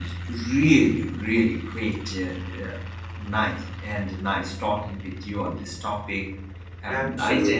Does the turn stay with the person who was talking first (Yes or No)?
No